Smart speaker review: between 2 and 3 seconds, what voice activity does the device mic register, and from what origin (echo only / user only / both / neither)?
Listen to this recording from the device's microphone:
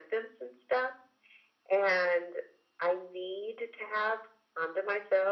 echo only